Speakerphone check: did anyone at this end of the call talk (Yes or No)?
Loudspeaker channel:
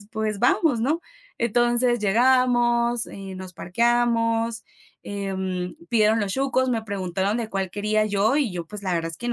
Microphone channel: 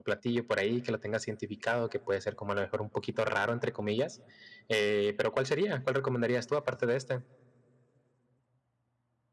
Yes